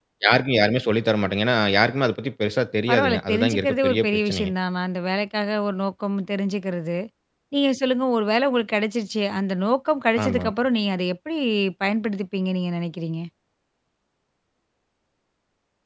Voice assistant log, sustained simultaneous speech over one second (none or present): present